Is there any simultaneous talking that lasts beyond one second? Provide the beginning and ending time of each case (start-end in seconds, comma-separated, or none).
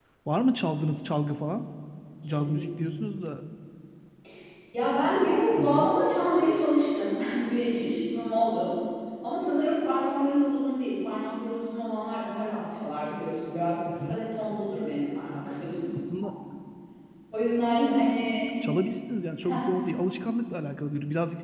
none